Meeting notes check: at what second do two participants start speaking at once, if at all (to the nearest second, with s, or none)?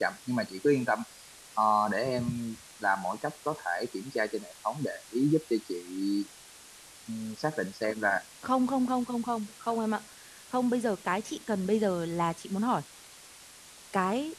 none